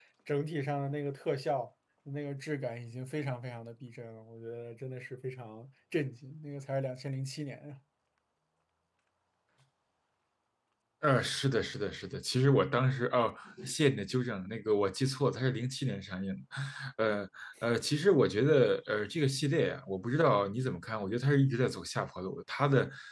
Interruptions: none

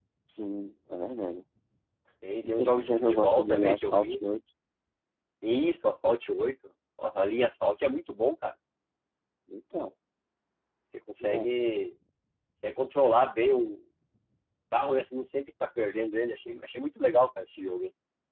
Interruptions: present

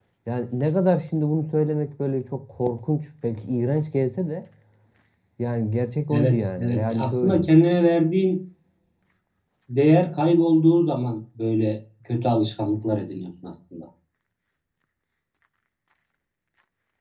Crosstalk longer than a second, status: present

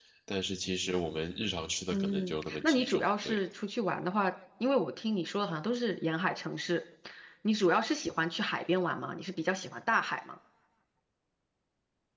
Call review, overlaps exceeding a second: present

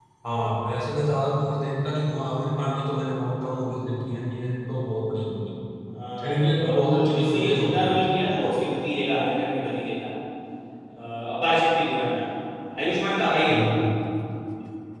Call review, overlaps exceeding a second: present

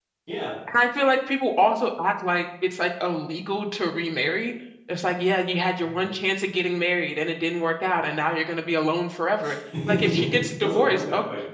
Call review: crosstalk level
present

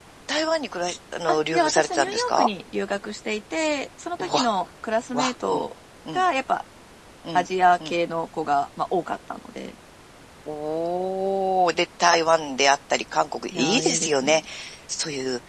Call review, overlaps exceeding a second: present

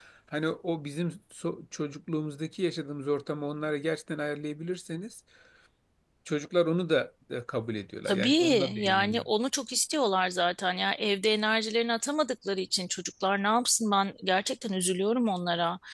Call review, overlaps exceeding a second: present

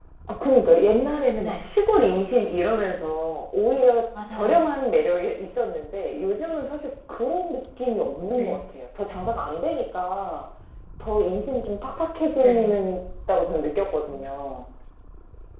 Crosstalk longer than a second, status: none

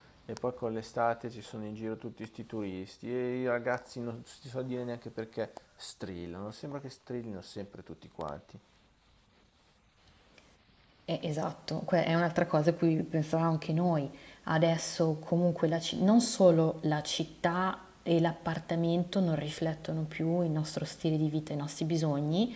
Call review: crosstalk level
none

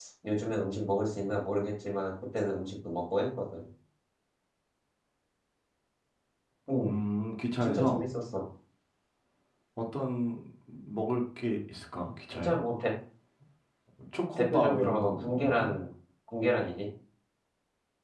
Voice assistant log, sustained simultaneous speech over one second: present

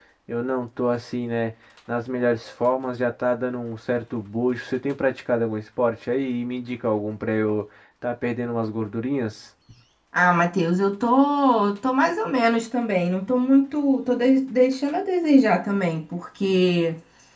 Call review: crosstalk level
none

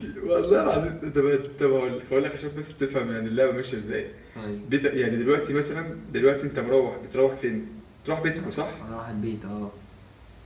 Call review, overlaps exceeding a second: none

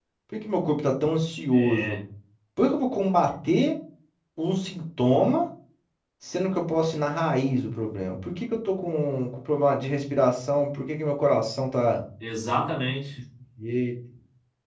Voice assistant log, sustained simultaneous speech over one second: none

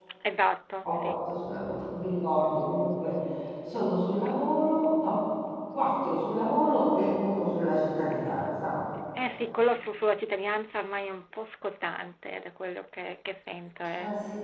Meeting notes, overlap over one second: none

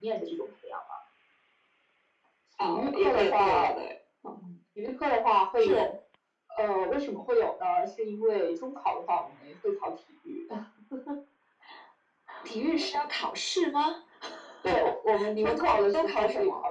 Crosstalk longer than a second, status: present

